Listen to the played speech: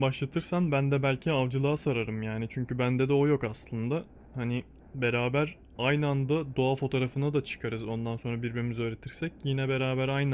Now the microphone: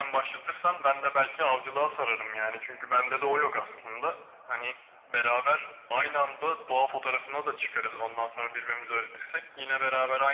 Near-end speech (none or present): none